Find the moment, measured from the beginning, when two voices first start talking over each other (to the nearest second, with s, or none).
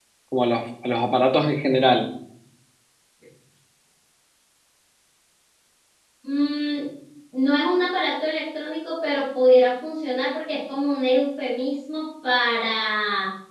none